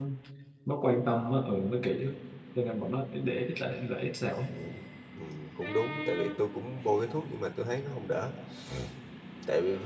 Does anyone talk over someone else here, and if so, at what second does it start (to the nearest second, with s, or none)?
none